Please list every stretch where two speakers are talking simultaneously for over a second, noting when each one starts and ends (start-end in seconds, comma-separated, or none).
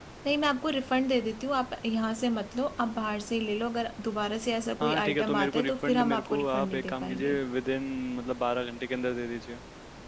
4.8-7.3